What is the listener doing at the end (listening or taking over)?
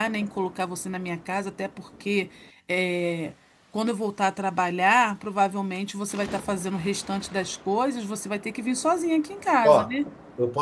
taking over